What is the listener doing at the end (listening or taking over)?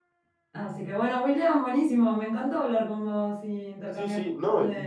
taking over